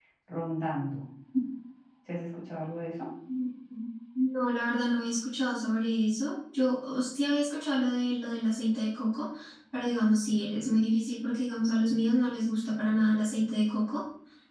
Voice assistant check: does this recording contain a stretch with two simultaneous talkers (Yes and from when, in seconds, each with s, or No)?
No